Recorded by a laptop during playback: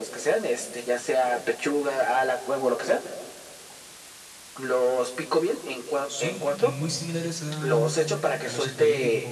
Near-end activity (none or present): present